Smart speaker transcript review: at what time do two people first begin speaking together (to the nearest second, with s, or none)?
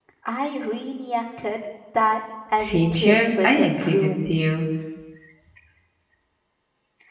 3 s